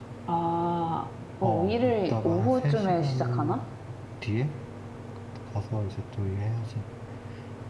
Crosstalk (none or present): present